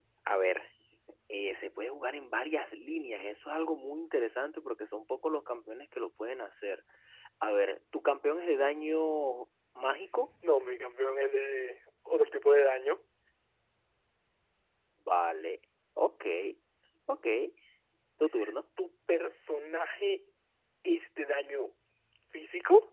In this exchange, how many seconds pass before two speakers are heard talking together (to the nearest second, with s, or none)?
none